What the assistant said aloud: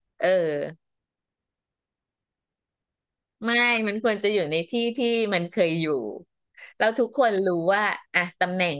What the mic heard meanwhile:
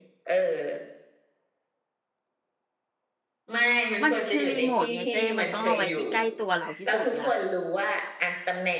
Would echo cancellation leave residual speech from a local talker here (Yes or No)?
Yes